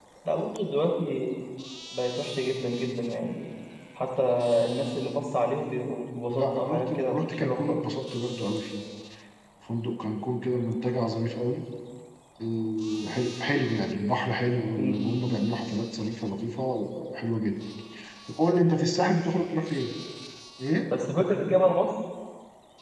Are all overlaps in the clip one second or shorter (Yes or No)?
No